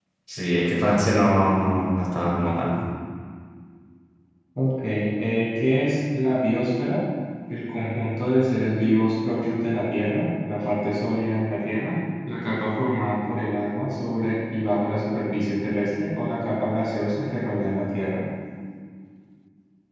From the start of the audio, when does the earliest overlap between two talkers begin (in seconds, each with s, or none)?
none